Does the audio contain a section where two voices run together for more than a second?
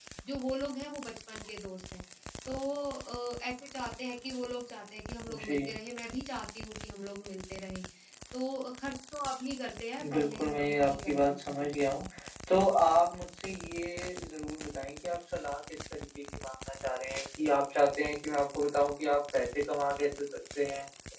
Yes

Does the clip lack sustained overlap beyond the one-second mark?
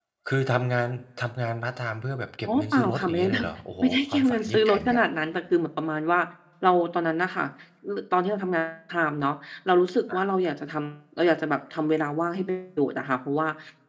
No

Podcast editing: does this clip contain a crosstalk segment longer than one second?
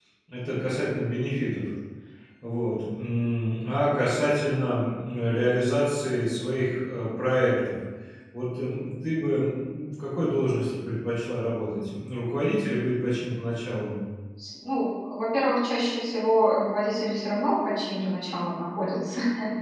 No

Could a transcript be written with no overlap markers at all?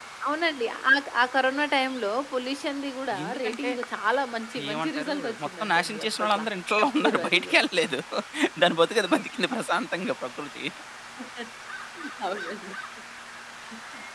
No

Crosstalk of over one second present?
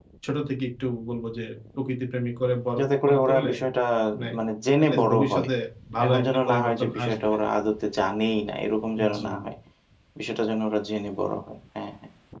Yes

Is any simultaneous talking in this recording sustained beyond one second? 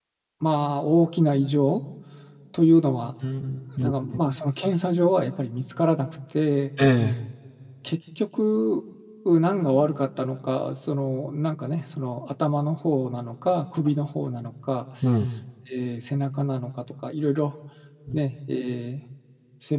No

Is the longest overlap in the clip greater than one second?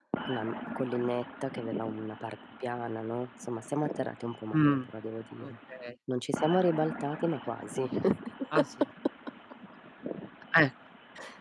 No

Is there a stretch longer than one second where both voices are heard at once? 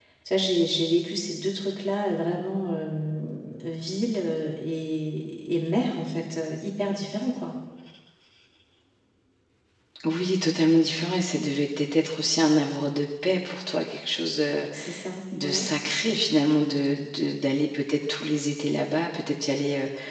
No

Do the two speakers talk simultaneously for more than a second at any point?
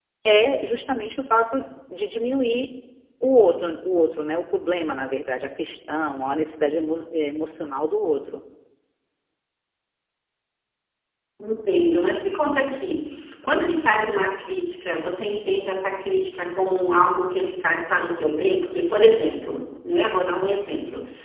No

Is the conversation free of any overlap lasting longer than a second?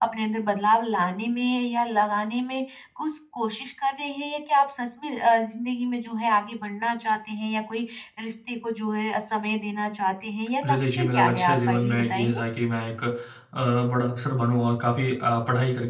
No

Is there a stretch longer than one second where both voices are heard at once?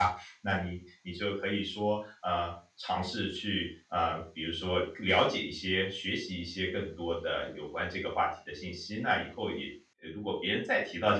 No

